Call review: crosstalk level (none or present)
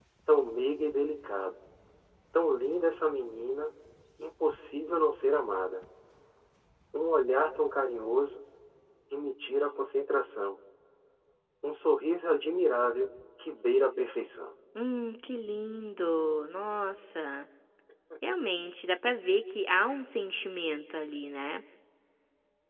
none